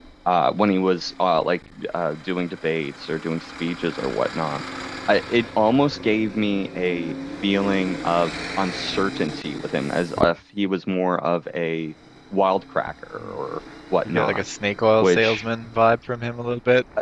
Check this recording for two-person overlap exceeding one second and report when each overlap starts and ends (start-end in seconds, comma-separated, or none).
none